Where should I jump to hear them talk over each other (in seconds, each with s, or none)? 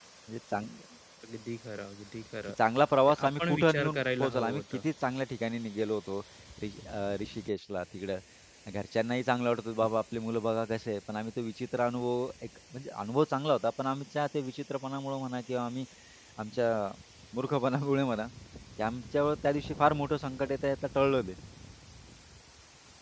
3.1 s